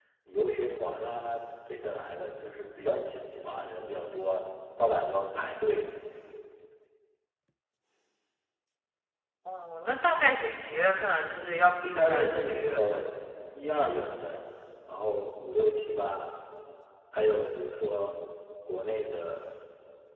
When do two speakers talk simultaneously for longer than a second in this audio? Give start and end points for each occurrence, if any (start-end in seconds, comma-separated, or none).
11.8-13.1